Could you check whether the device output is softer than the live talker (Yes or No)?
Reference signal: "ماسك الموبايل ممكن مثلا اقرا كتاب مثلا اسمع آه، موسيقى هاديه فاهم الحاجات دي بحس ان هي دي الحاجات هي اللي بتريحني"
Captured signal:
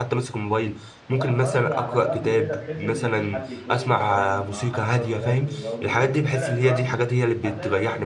No